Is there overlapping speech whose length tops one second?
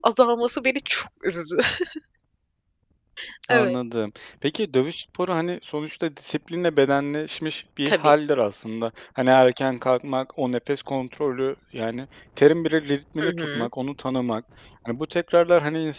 No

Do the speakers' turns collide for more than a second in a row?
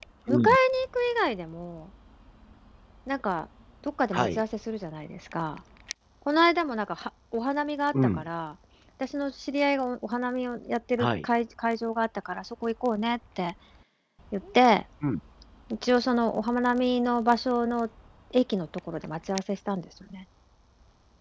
No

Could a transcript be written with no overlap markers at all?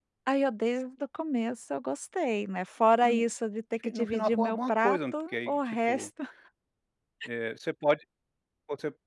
No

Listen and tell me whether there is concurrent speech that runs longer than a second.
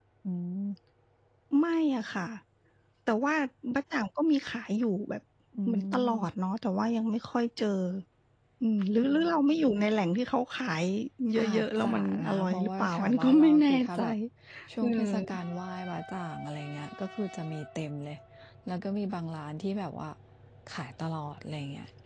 Yes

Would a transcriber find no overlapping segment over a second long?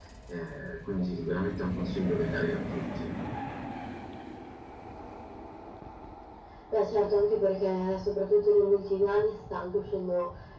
Yes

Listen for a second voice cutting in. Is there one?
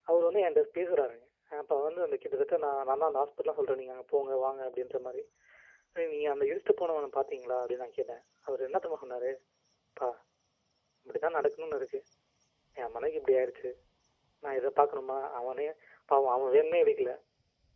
No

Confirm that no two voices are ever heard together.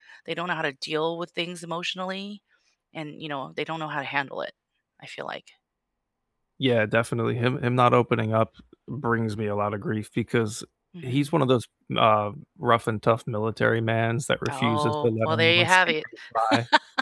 No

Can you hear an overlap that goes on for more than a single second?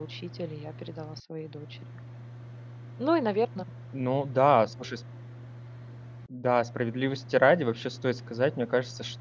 No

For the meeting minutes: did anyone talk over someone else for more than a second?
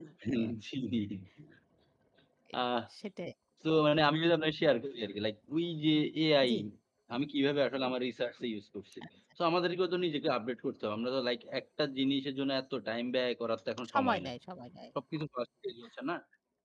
No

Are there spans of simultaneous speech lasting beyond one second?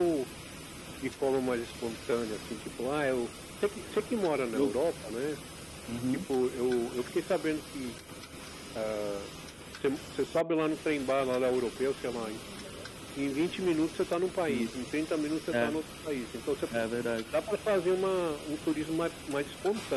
No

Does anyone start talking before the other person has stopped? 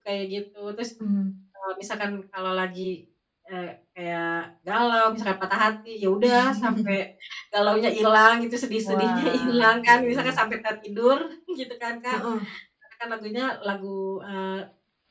Yes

